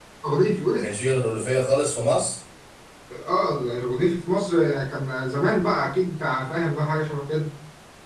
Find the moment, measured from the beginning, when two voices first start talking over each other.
none

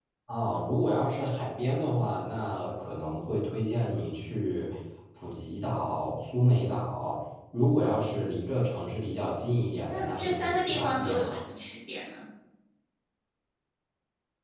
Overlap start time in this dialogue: 10 s

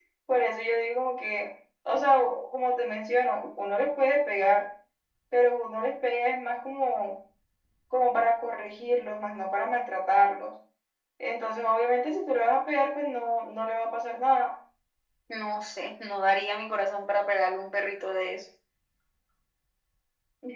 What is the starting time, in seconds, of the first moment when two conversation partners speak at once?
none

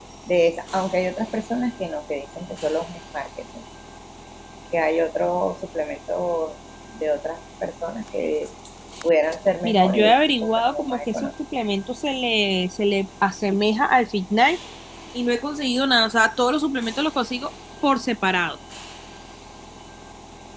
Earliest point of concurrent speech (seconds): 10 s

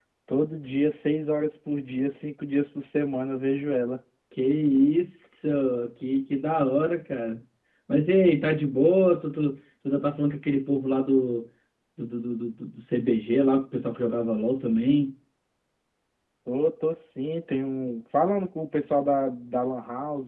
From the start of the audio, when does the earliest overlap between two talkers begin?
none

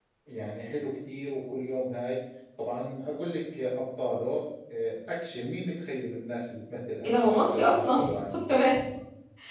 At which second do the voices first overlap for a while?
7 s

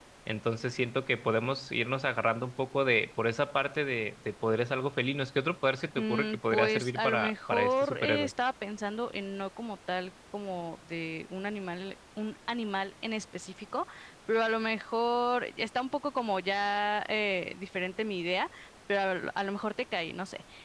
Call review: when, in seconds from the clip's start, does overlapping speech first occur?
6 s

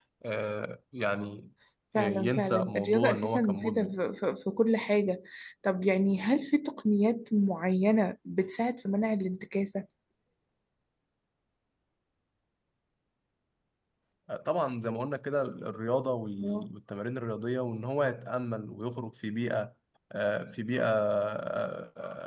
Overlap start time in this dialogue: 2 s

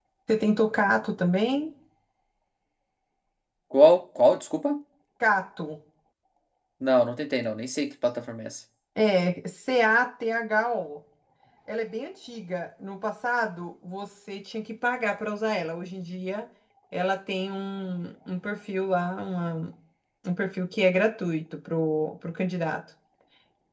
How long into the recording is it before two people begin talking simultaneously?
none

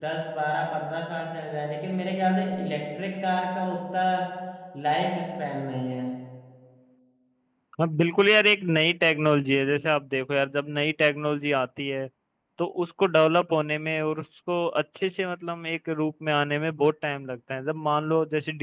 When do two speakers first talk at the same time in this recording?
none

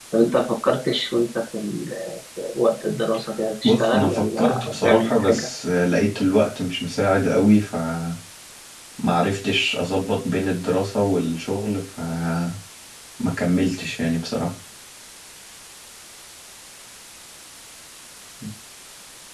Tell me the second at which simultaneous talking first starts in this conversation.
4 s

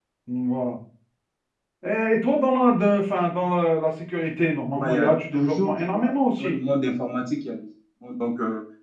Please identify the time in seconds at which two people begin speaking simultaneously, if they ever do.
5 s

